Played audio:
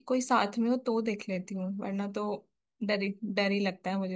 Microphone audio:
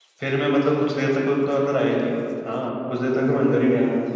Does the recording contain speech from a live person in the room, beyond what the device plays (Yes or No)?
Yes